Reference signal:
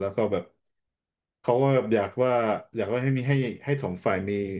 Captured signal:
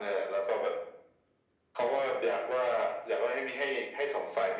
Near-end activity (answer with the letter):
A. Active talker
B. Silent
B